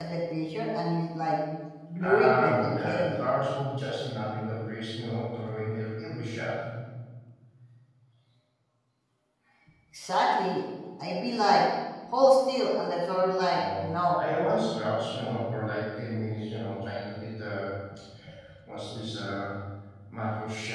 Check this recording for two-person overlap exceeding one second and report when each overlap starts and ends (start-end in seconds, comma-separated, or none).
2.0-3.2